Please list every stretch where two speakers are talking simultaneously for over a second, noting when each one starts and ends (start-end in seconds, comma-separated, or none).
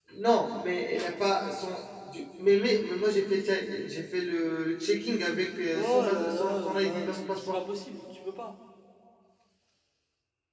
5.7-7.6